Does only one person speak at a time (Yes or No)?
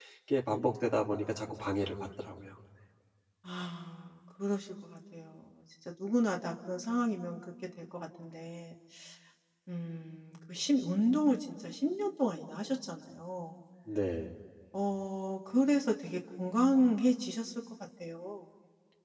Yes